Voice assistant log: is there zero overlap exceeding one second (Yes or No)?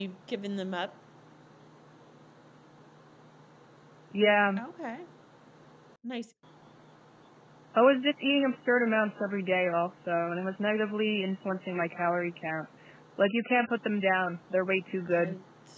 Yes